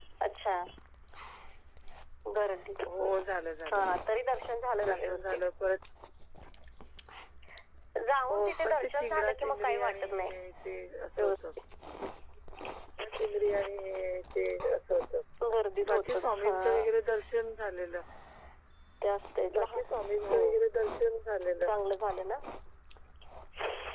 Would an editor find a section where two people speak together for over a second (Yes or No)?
Yes